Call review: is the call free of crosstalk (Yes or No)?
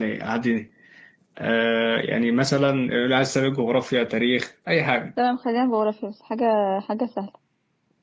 Yes